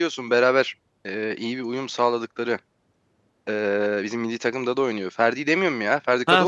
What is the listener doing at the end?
taking over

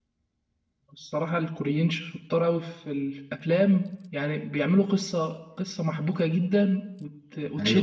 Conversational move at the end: listening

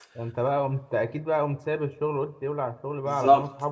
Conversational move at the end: taking over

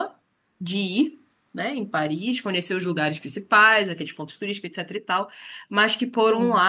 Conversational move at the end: listening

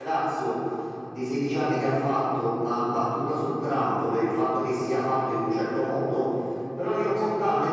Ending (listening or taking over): listening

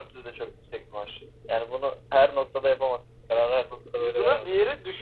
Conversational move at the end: taking over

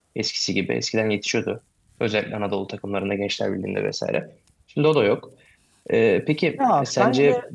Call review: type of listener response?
taking over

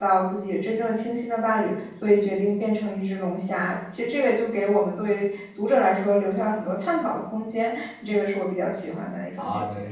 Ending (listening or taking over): taking over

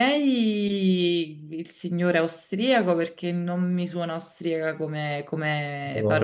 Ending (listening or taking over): listening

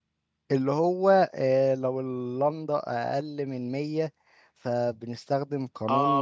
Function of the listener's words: taking over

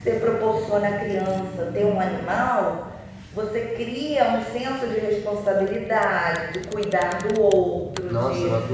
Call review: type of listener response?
taking over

